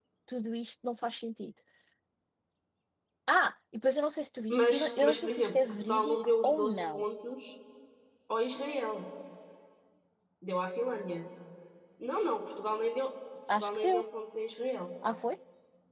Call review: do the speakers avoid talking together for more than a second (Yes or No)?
No